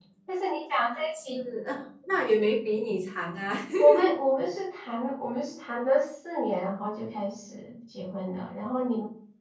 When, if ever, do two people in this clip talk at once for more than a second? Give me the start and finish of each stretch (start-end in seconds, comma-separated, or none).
none